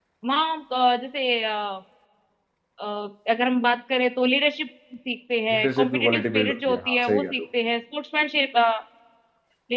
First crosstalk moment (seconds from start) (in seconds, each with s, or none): 5.5 s